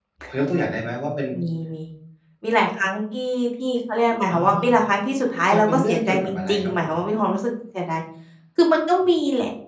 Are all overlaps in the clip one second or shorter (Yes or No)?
No